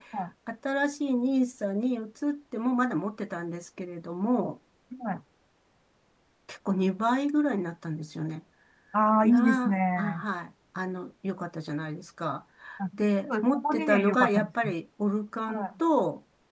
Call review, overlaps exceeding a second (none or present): present